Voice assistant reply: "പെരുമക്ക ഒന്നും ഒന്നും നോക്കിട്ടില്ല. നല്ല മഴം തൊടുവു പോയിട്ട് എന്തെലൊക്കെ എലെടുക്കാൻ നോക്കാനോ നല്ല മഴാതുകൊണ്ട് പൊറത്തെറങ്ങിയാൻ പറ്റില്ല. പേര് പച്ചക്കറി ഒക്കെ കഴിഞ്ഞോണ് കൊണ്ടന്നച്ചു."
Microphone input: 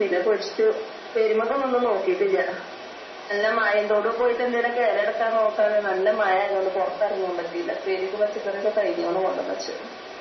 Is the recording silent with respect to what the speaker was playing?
No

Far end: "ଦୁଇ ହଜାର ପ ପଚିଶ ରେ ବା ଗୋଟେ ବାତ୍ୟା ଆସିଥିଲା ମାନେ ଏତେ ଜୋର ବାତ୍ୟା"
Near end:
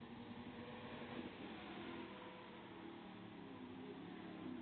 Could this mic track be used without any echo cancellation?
Yes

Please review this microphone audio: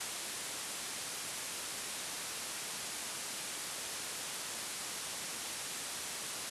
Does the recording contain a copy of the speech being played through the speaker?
No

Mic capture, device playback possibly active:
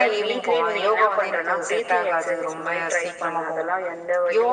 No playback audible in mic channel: No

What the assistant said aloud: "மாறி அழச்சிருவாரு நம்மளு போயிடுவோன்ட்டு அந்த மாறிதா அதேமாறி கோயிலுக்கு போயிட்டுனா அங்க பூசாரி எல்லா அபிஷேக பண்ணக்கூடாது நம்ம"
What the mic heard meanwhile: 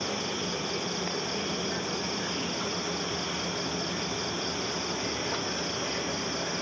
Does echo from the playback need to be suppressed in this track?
No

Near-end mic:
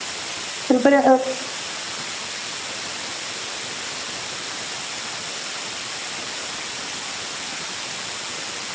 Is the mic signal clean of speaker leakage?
Yes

